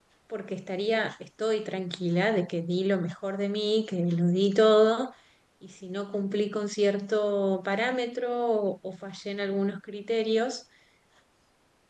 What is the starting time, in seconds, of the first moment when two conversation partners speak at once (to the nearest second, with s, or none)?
none